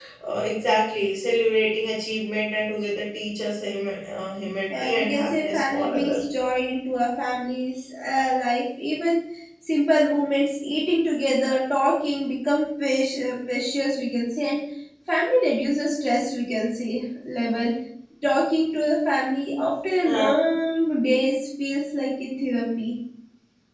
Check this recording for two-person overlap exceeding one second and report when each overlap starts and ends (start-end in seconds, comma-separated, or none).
4.7-6.2